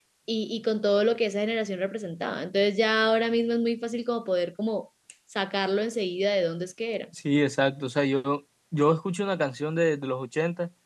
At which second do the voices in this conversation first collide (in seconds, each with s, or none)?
none